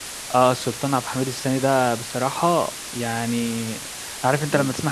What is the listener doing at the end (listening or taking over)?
listening